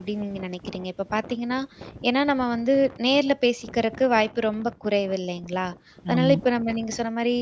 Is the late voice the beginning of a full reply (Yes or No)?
No